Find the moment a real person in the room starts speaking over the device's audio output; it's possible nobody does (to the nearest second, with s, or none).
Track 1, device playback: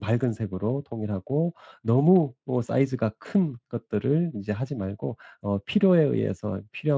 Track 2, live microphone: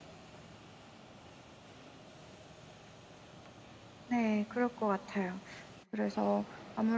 4 s